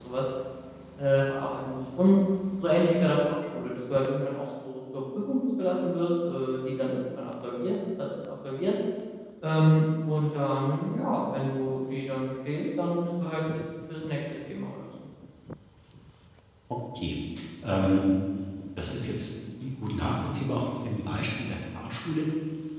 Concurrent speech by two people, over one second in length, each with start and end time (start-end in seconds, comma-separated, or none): none